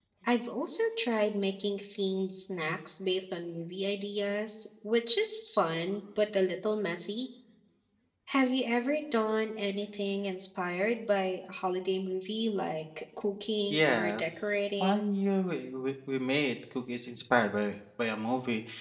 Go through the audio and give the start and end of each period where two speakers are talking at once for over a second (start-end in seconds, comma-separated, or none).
13.7-15.1